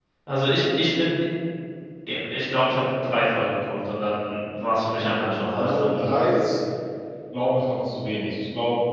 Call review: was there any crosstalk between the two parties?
Yes, from 4.9 s

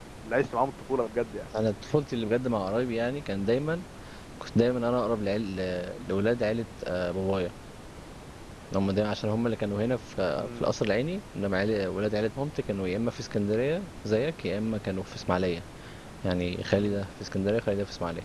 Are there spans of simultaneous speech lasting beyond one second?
No

